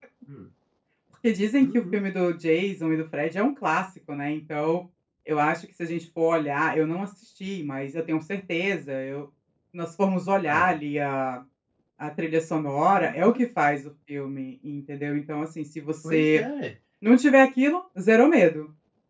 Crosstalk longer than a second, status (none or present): none